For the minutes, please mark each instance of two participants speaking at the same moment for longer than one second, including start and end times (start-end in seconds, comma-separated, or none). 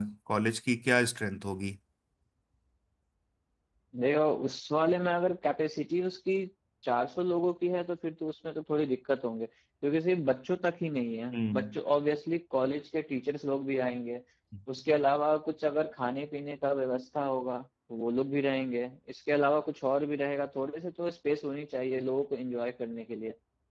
none